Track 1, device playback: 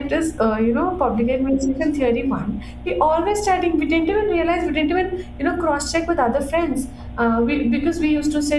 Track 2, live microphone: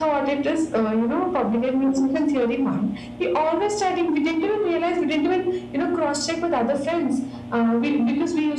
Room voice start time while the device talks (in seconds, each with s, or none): none